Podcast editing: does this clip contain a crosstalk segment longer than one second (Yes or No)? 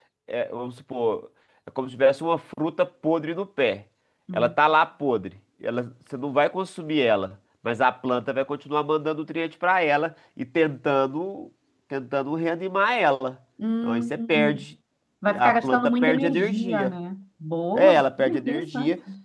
Yes